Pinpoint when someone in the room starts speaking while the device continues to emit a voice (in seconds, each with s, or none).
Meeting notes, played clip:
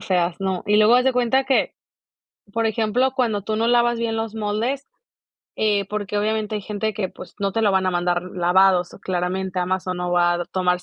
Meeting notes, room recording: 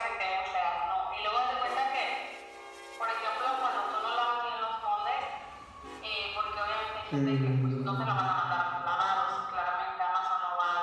7.1 s